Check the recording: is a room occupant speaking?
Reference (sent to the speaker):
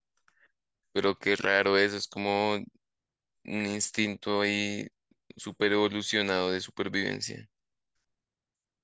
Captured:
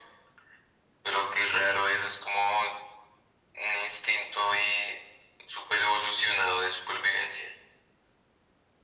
No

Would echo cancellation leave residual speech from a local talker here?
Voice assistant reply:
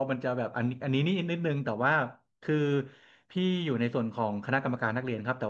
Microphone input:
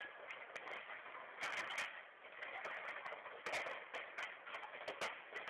No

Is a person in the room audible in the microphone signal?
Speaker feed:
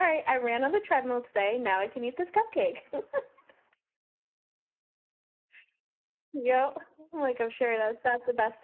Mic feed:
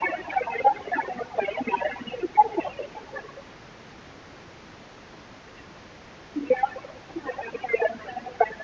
No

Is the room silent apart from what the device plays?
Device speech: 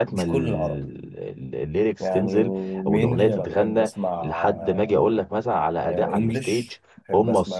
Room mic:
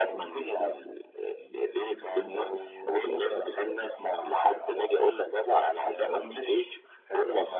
Yes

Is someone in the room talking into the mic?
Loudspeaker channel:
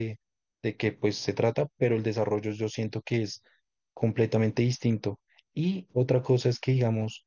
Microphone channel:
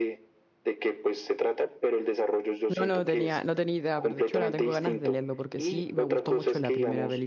Yes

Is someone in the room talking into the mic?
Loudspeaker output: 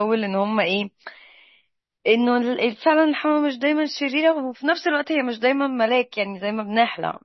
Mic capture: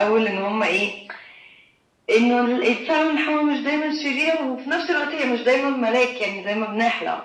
No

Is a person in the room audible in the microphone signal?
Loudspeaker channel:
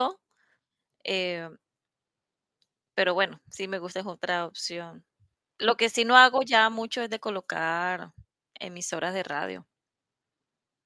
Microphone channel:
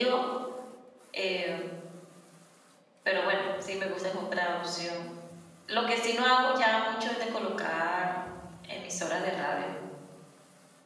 No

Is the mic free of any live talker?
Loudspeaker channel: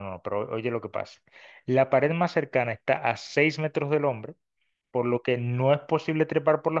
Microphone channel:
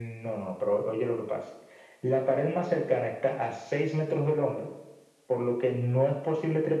Yes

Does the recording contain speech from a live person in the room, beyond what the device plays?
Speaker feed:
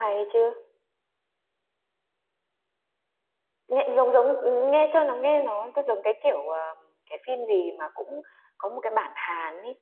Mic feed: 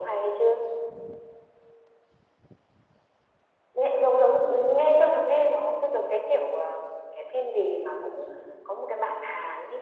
No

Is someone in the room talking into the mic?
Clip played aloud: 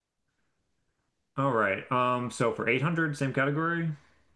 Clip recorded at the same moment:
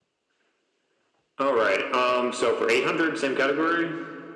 No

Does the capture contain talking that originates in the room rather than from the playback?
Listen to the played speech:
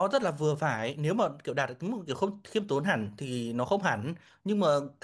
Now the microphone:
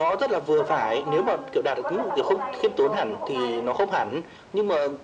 Yes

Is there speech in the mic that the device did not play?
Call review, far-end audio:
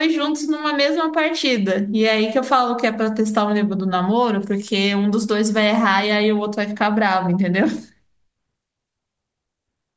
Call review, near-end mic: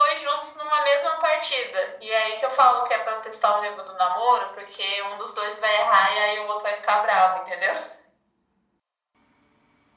No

